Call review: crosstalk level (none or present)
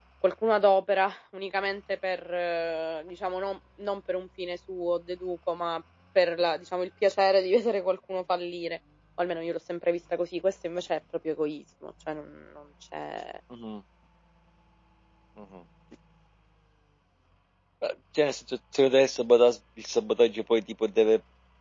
none